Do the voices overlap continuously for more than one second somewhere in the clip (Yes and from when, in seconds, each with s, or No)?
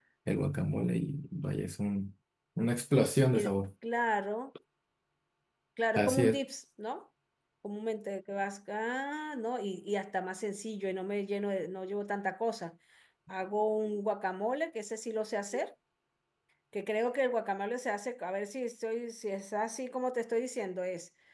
No